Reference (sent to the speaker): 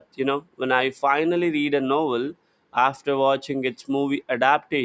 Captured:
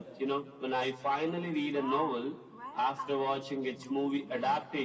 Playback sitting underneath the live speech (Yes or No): No